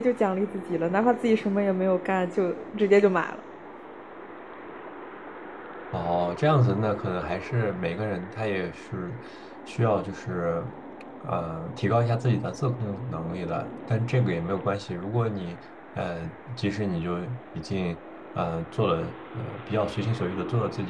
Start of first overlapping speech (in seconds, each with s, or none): none